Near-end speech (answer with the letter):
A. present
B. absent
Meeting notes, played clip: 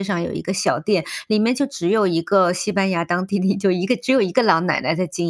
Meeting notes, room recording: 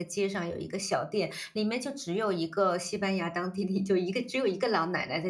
B